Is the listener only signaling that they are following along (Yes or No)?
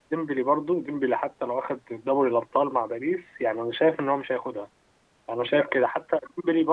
Yes